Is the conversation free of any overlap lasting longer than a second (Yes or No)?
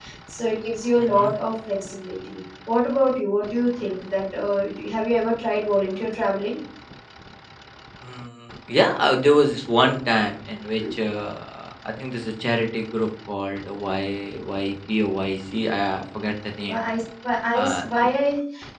Yes